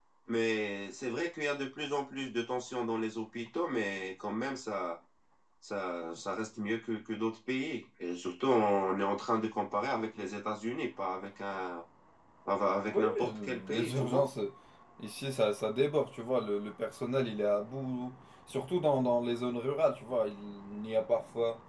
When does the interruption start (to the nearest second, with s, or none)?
13 s